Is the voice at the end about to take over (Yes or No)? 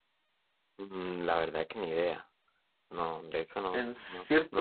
Yes